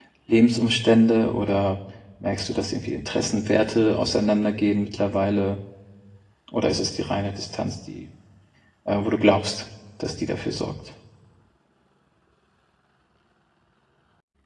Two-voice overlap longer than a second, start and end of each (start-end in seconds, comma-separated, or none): none